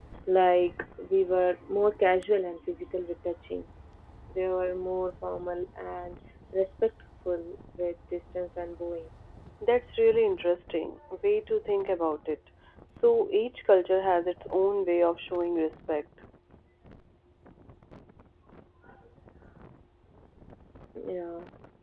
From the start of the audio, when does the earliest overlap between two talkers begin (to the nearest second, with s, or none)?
none